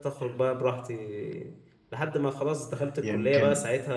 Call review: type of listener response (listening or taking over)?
listening